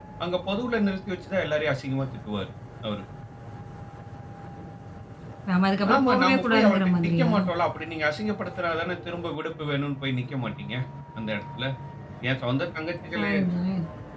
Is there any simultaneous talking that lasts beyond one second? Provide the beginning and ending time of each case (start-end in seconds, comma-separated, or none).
5.9-7.3